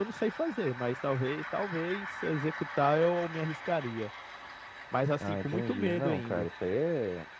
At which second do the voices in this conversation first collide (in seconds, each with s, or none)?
5.2 s